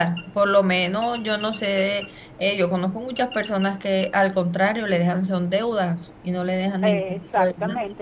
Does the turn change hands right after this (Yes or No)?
Yes